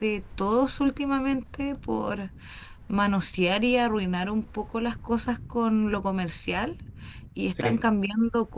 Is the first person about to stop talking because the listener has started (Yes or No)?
No